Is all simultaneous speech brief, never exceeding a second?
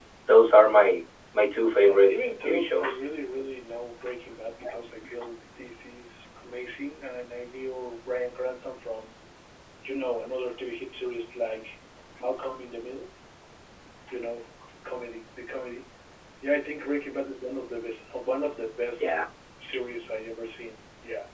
No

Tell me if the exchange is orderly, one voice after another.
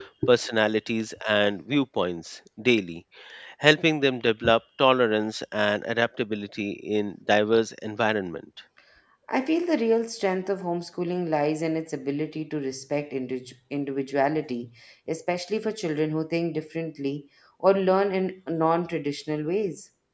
Yes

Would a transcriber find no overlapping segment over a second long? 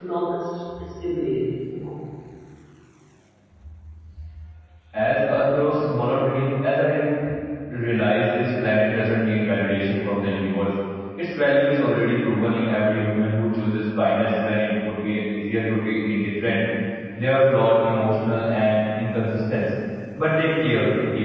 Yes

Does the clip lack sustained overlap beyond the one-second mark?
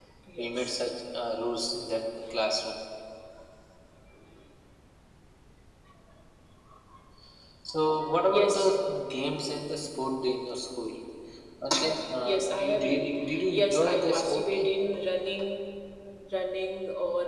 No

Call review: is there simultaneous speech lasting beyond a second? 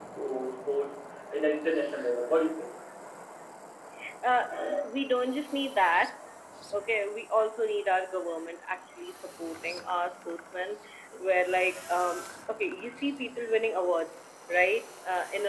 No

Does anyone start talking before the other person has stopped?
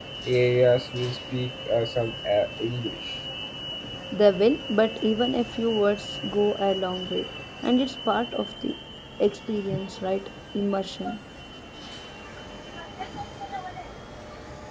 No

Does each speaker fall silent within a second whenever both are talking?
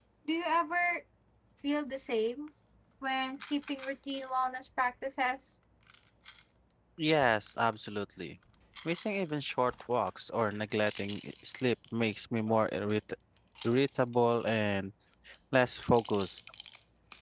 Yes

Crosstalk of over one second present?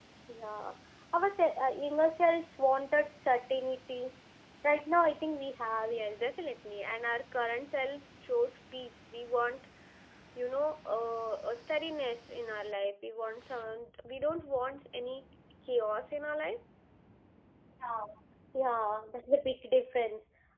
No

